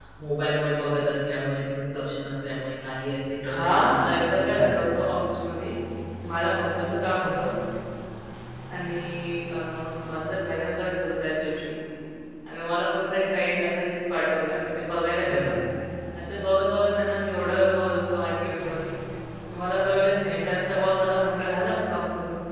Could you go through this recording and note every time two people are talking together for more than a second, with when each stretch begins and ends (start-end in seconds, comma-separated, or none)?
3.4-4.8